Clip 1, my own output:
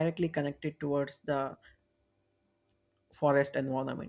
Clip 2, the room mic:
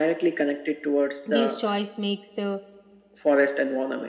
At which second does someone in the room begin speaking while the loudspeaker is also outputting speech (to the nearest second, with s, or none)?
1 s